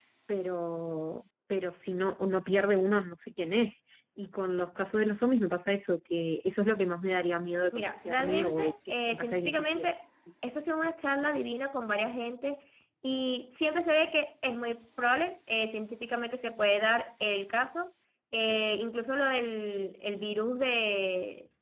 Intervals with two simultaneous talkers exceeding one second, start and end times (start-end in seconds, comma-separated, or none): 7.7-9.9